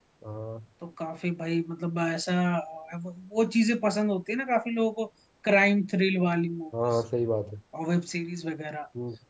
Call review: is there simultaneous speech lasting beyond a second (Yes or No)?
No